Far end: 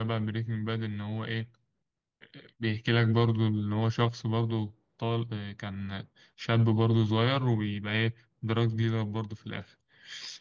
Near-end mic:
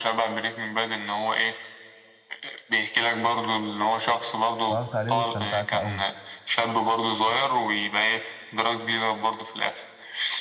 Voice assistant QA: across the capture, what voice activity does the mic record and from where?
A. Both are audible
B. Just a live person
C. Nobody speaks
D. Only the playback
A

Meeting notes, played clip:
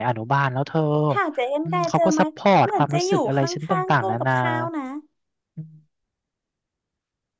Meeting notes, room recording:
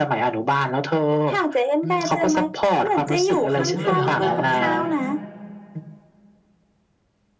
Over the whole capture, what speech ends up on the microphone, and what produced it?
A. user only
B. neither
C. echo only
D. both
D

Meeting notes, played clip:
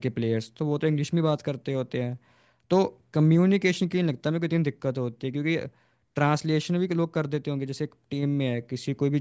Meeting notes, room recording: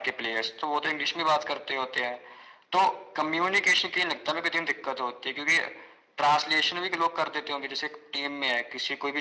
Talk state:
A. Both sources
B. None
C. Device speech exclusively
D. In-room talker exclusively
C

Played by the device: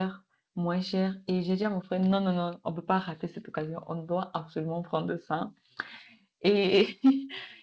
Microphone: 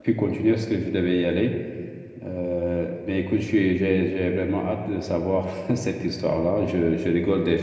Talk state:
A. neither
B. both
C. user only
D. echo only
C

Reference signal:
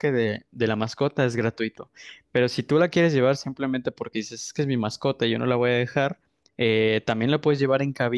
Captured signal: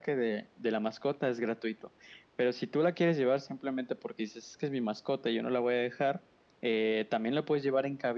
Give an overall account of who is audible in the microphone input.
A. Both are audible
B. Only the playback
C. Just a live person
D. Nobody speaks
B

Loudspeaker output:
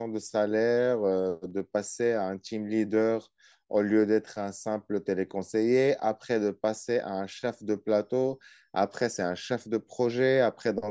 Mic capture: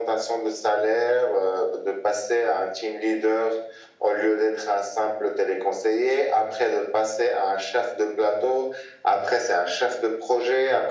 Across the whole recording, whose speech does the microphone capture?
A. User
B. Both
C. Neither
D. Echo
D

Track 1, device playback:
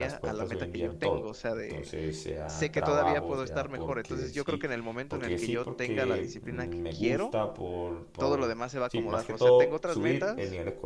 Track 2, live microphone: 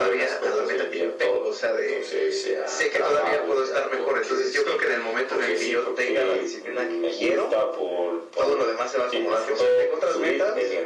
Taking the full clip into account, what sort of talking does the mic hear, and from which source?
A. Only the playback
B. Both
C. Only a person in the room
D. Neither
A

